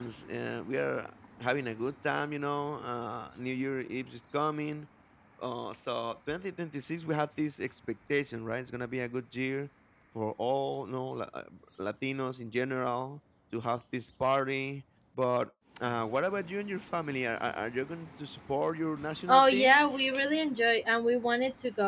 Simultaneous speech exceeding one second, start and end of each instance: none

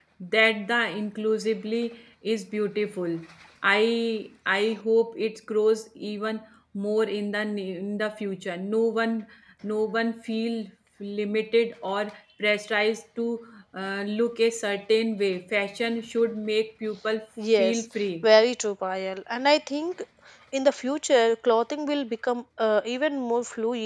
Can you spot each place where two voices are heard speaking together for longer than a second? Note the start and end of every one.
none

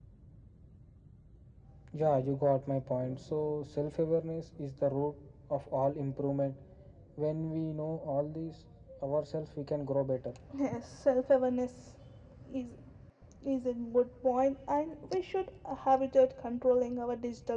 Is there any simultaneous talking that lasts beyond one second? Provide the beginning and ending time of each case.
none

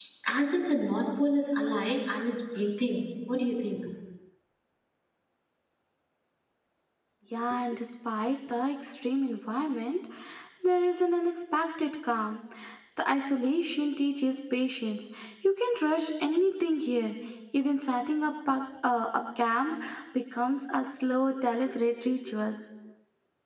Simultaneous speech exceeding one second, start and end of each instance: none

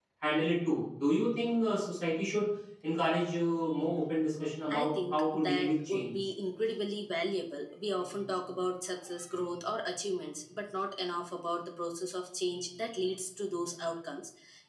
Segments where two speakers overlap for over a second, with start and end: 4.7-6.1

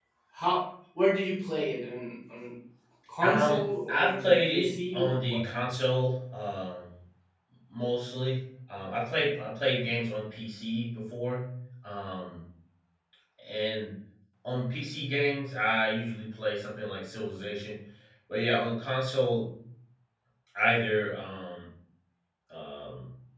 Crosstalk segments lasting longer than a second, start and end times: 3.2-5.5

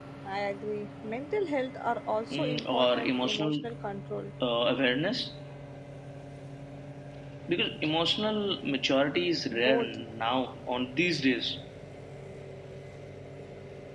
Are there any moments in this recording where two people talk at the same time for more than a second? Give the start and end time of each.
2.3-3.6

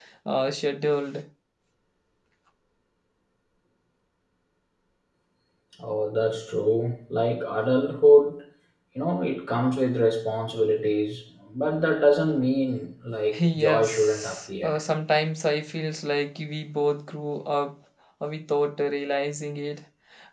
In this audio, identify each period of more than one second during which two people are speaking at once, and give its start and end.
13.6-14.8

